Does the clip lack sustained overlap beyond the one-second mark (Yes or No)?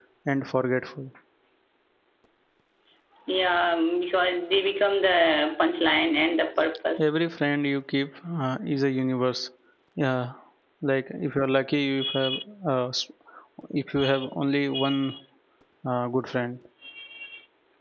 Yes